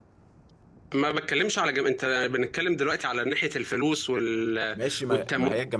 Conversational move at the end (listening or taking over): taking over